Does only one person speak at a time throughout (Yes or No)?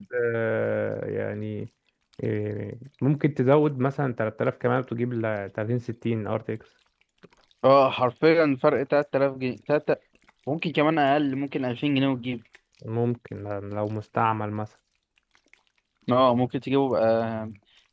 Yes